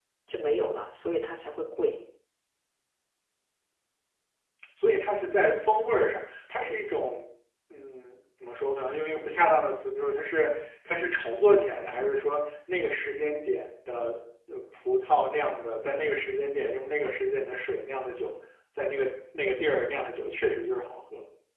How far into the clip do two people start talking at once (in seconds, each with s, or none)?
none